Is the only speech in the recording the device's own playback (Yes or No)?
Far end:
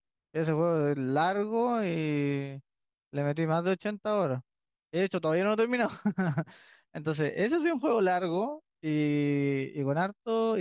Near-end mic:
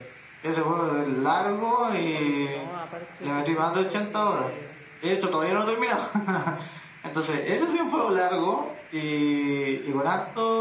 No